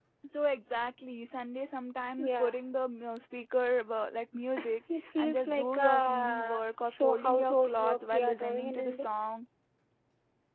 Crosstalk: present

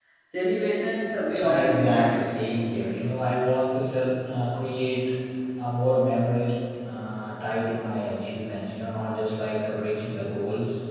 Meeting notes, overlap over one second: present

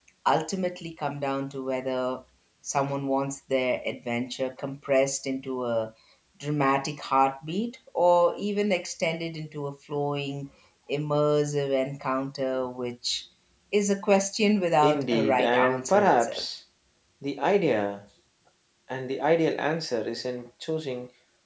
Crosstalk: present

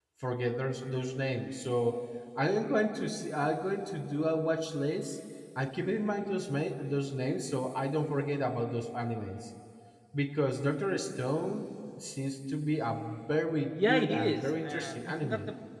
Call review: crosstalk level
present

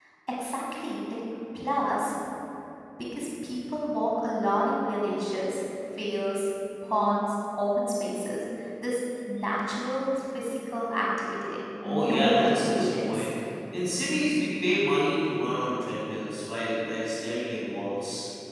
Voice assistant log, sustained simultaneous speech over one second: present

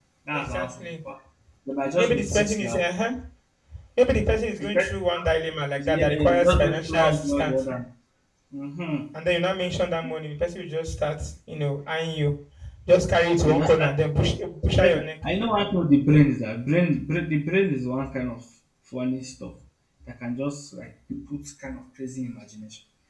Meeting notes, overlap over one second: present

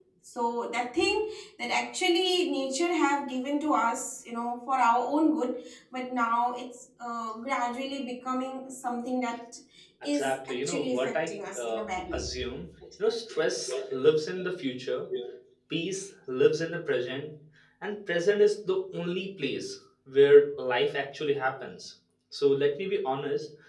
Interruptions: present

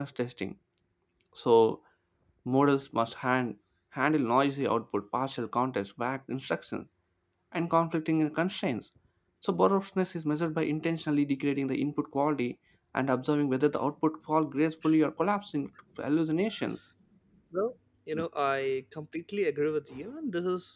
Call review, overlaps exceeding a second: none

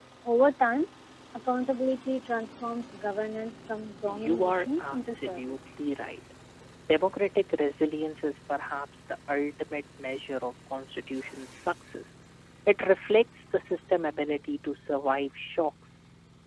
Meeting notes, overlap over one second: present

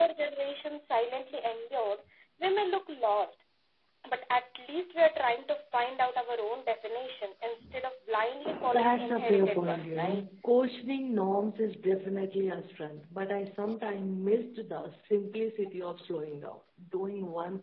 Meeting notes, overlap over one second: present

